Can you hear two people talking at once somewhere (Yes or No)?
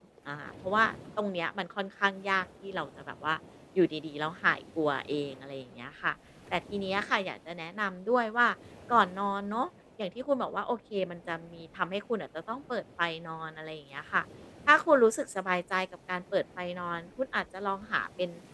No